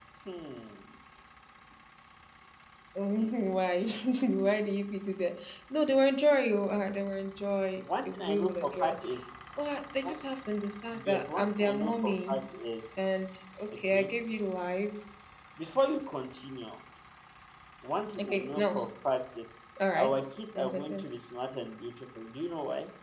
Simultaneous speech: Yes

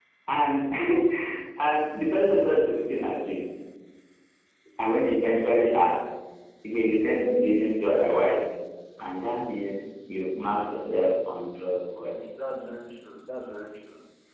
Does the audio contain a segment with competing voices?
No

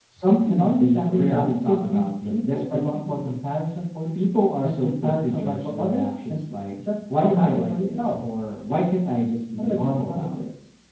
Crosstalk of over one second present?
Yes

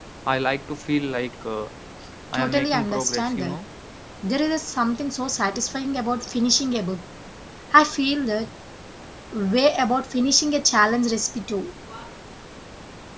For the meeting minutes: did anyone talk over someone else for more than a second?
Yes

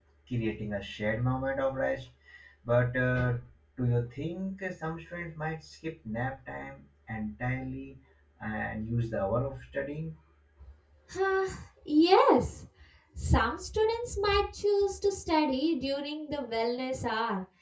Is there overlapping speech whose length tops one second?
No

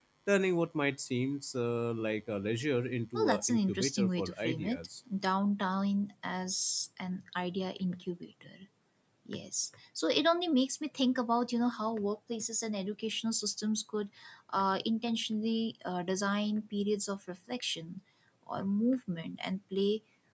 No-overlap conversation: No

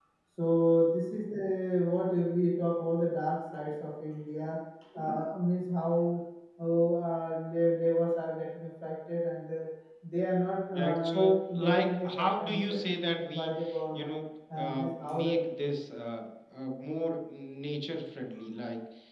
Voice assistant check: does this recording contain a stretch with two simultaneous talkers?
Yes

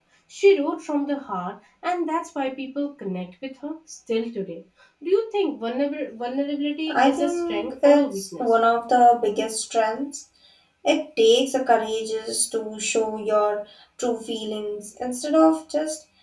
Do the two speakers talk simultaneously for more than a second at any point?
Yes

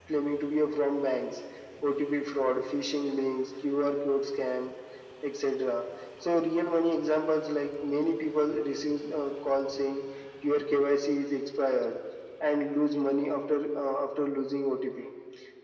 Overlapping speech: No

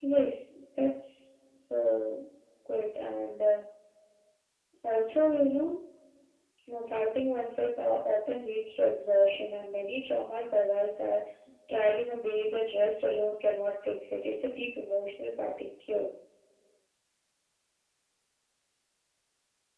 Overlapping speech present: No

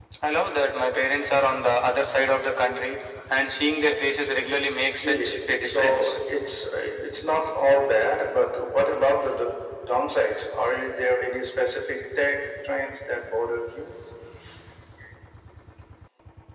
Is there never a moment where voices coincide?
No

